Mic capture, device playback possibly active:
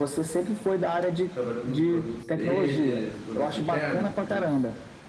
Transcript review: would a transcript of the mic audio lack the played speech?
No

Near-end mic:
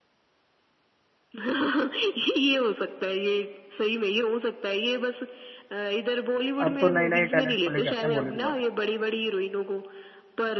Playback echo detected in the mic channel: Yes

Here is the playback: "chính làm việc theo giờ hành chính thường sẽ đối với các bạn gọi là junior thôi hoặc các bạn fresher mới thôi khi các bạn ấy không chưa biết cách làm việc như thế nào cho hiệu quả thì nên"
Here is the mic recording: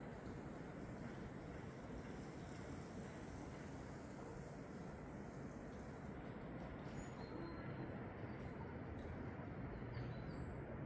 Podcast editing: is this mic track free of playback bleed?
Yes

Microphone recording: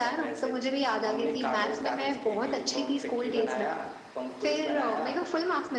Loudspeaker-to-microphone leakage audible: Yes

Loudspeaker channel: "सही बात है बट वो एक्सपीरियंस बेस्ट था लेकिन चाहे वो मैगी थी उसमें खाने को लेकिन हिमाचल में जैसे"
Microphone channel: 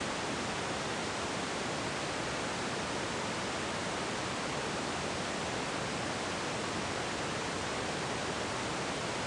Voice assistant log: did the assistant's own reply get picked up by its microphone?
No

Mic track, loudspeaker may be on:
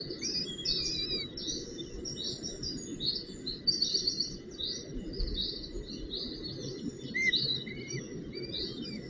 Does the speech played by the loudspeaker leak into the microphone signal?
No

